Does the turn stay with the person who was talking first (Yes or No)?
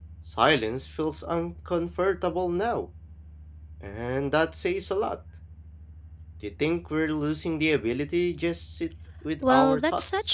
No